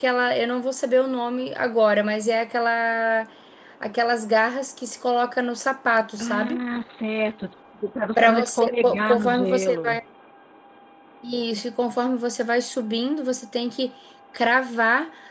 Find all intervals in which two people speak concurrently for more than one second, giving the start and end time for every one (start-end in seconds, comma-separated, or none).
8.2-10.0